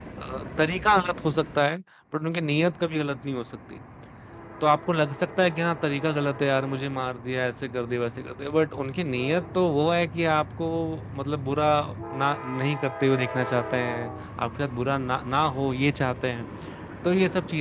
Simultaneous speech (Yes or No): No